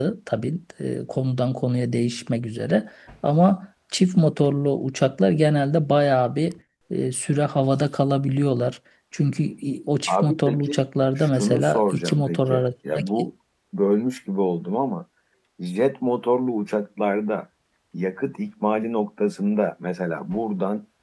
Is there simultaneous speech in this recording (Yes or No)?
Yes